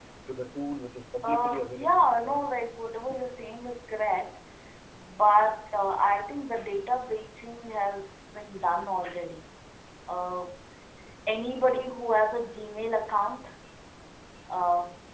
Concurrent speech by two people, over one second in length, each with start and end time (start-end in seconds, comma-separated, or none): 1.2-2.4